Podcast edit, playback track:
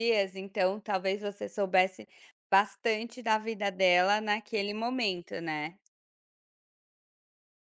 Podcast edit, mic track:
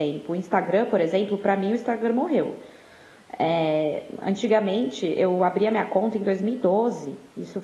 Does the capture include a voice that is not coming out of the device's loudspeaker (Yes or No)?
Yes